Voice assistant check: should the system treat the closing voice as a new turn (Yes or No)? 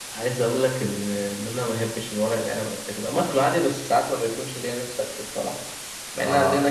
No